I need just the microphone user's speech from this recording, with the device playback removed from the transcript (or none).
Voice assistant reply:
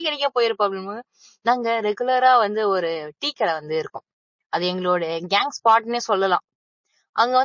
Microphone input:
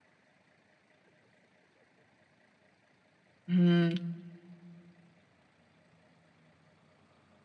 ம்.